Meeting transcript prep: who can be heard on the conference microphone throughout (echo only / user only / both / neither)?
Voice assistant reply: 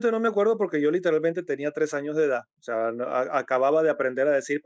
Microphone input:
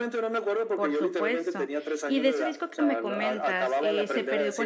both